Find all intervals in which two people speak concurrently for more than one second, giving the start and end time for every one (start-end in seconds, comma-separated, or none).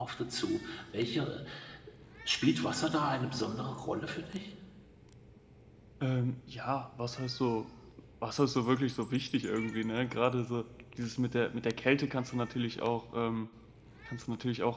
none